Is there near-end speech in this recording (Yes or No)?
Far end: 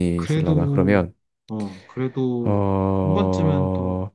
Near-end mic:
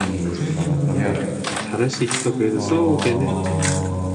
Yes